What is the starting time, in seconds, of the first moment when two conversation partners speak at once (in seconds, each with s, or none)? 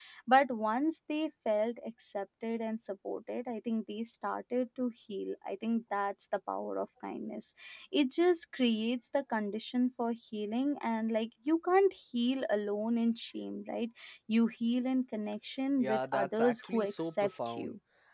15.8 s